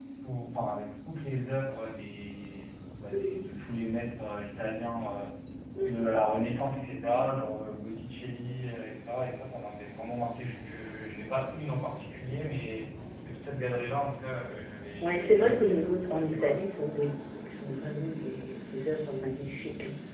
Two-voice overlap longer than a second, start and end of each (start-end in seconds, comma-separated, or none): 15.0-16.6